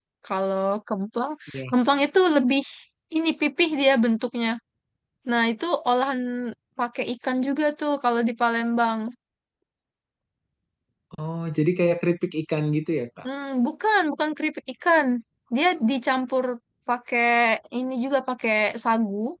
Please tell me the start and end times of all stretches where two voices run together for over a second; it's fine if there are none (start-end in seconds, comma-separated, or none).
none